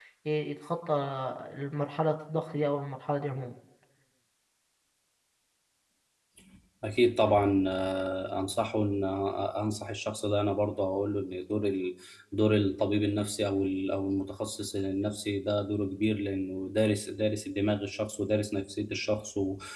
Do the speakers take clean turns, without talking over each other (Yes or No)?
Yes